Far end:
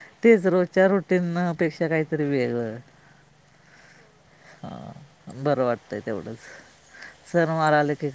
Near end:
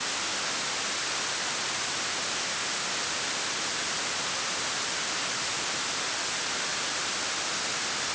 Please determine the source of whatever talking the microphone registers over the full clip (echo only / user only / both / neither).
neither